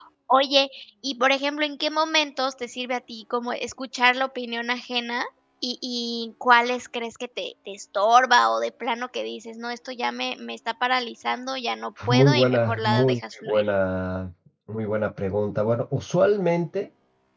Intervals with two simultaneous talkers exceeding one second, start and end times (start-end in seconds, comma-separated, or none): 12.1-13.6